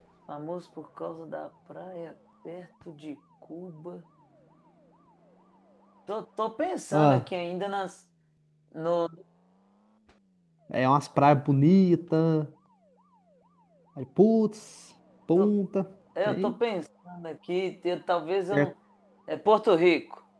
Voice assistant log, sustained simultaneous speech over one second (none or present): none